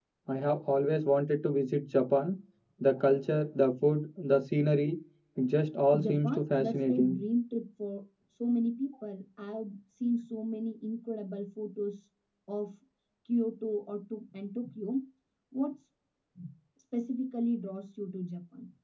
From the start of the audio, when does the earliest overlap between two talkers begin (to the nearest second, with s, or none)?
6 s